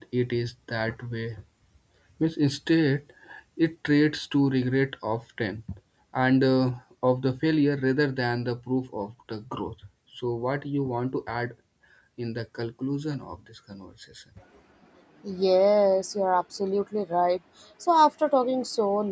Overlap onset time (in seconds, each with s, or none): none